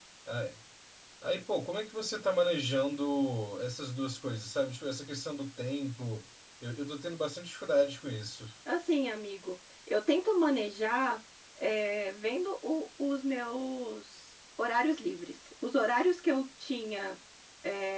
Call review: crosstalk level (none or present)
none